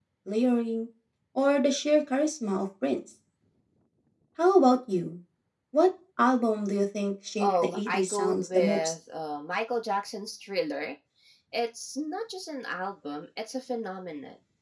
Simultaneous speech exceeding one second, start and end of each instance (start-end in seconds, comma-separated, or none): 7.4-8.9